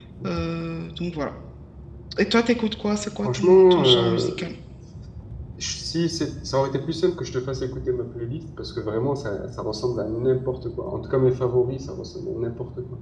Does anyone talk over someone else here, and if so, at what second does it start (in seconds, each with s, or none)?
3.2 s